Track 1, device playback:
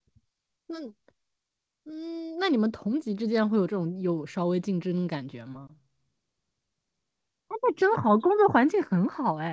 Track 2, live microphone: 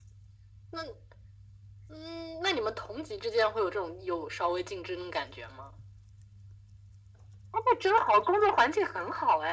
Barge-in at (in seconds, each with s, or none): none